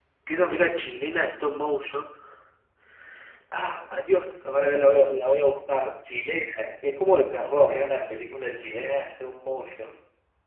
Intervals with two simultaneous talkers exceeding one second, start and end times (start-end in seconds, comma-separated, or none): none